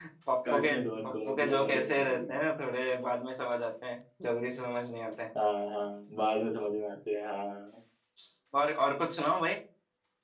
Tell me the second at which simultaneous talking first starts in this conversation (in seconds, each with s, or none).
0.5 s